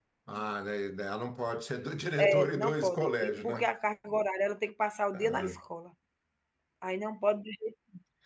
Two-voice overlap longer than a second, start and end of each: 2.2-3.7

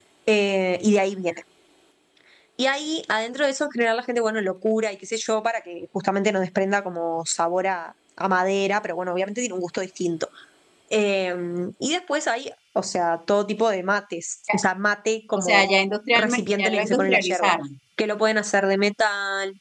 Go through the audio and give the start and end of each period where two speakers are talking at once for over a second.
16.1-17.5

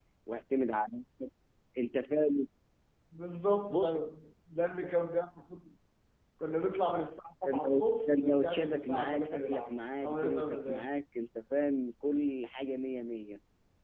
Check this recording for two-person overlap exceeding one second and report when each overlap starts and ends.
7.5-10.9

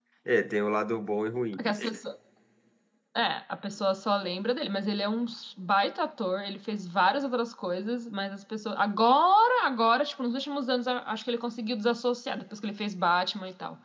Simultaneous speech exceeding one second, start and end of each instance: none

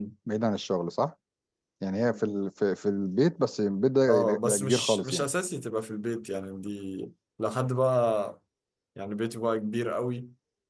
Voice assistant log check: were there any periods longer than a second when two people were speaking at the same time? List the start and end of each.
4.1-5.3

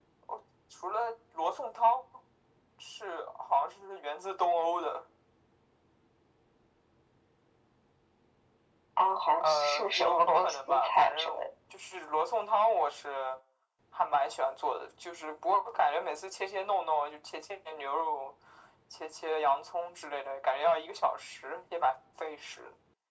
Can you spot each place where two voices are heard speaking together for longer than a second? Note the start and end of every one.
9.4-11.4

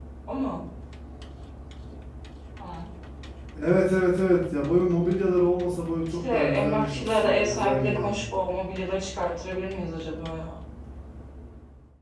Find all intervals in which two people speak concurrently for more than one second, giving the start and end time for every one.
6.3-8.2

